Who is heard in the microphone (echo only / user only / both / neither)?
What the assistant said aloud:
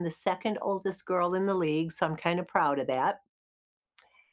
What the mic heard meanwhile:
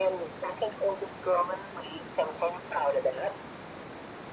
echo only